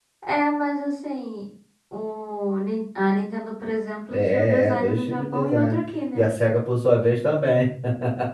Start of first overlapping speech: 4.1 s

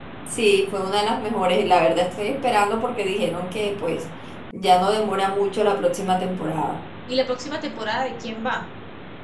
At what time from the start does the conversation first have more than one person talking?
none

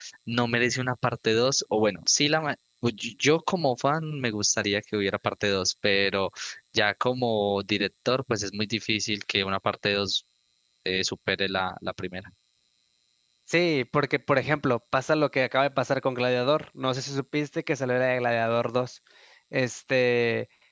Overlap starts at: none

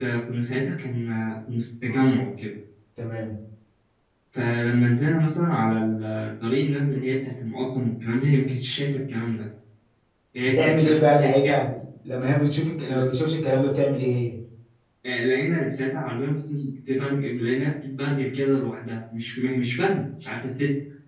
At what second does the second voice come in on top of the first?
10.4 s

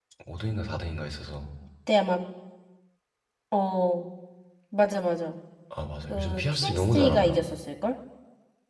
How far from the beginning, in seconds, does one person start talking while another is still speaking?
6.1 s

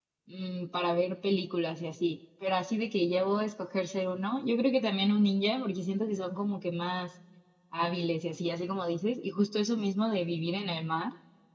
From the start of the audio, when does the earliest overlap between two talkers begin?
none

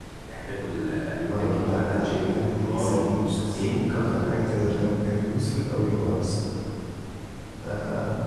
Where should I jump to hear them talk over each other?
1.3 s

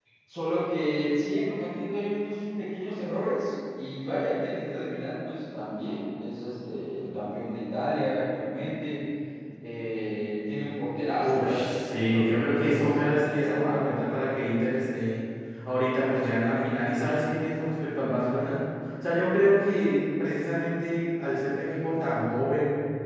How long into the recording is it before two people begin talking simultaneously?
11.2 s

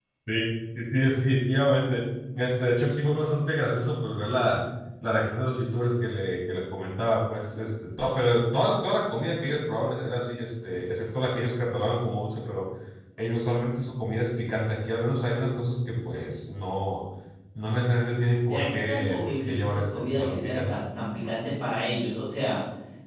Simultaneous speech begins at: 18.5 s

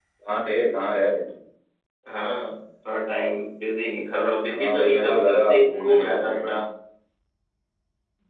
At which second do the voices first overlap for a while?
4.5 s

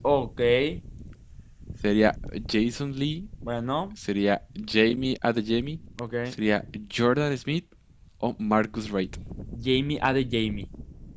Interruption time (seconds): none

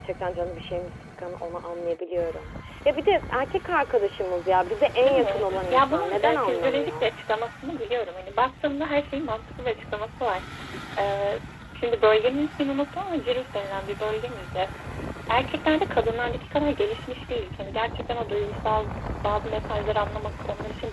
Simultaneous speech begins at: 5.0 s

